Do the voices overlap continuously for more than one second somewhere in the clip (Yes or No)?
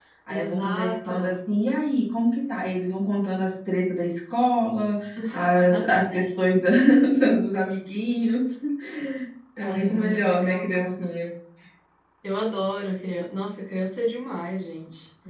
Yes